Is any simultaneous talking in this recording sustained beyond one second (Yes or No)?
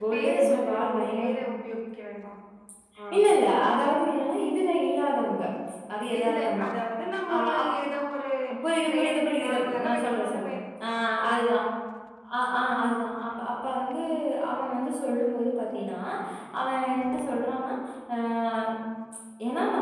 Yes